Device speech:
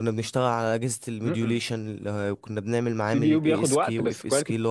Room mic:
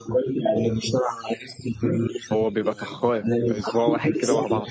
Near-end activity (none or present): present